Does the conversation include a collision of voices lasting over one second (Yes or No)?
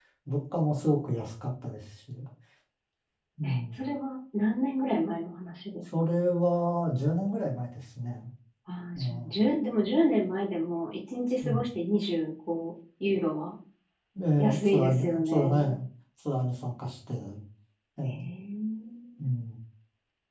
Yes